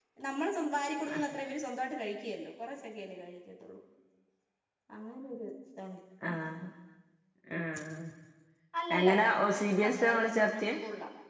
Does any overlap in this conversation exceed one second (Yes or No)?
Yes